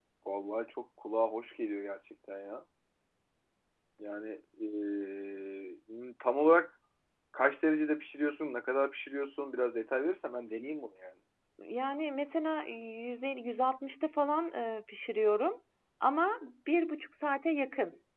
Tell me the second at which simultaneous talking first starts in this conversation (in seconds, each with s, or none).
none